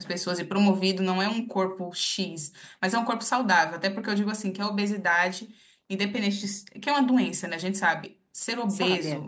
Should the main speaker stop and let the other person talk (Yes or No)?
No